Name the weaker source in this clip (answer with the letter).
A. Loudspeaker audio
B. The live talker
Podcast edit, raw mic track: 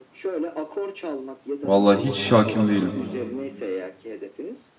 A